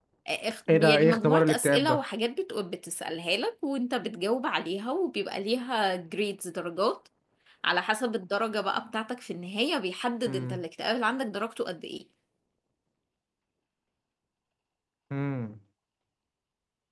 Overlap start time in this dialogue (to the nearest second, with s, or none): 1 s